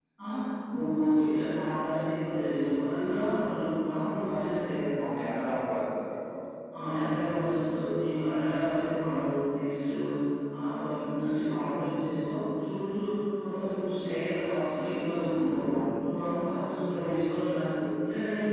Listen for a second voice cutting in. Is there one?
No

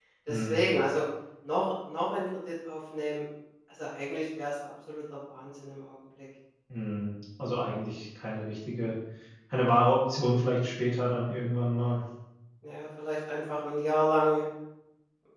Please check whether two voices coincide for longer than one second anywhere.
No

